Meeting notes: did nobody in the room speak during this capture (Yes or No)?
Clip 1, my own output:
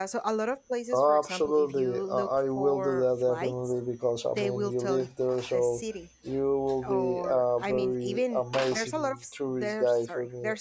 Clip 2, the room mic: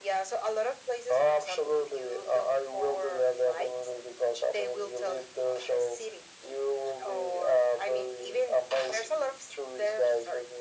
Yes